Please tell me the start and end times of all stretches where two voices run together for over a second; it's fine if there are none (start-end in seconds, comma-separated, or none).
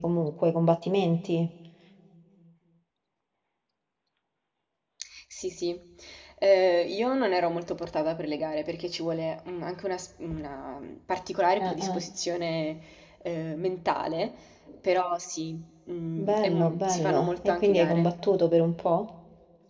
16.2-18.1